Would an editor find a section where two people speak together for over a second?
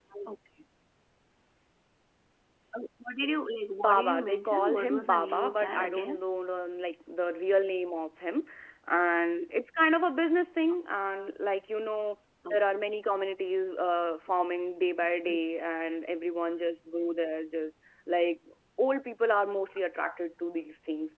Yes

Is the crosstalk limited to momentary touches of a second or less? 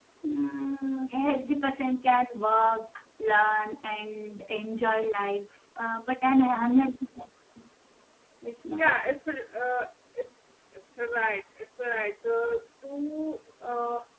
Yes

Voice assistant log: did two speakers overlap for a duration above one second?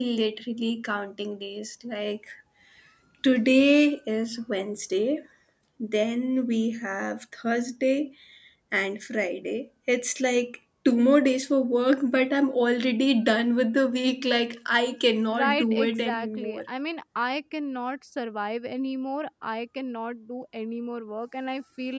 Yes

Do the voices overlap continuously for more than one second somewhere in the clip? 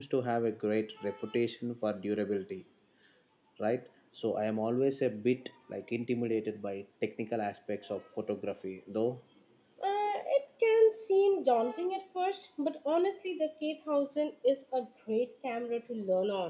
No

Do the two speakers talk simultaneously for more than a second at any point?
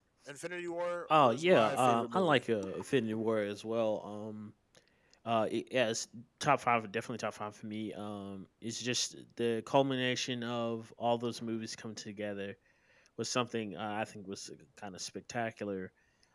Yes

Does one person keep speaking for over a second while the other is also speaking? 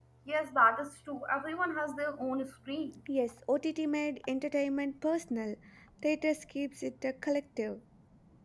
No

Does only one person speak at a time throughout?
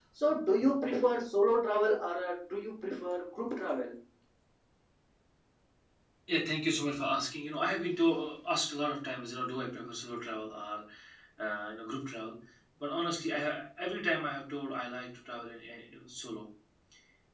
Yes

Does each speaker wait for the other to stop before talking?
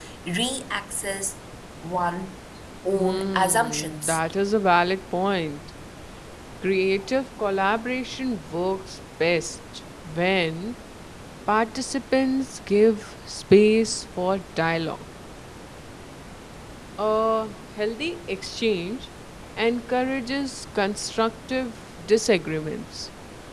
No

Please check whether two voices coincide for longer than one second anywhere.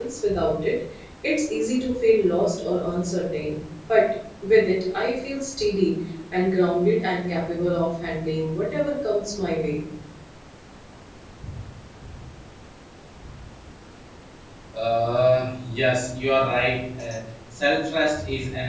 No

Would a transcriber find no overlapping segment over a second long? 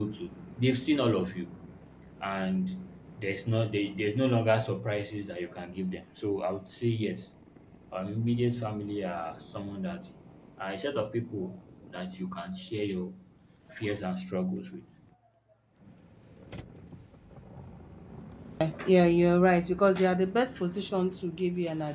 Yes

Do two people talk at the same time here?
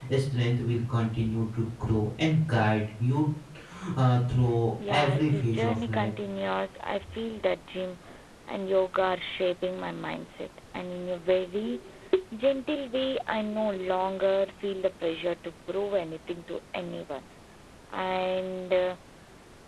Yes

